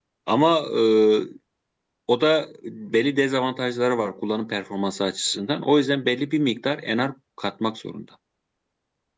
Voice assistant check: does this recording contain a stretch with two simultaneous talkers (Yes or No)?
No